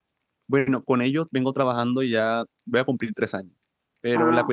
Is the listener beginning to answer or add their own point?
No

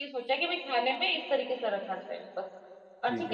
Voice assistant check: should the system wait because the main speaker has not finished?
Yes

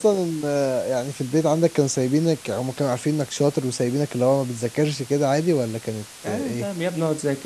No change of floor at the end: No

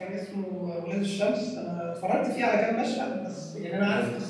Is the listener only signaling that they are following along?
Yes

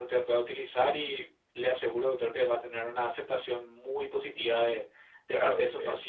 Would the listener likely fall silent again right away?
No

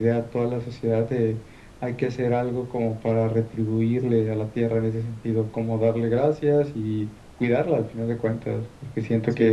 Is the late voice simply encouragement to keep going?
No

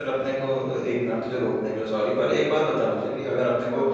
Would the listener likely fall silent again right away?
Yes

